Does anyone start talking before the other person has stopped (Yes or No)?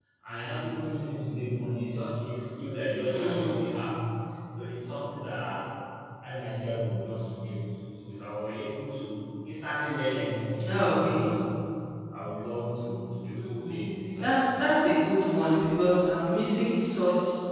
Yes